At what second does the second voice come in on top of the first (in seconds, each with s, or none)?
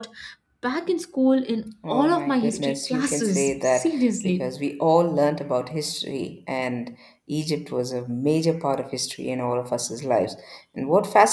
1.8 s